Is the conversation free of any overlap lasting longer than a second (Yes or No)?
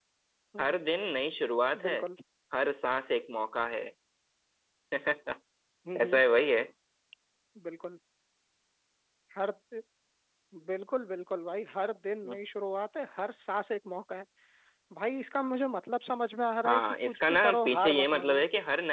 No